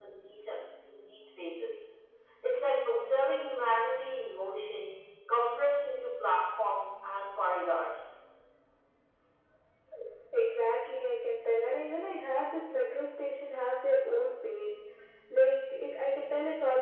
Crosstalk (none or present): none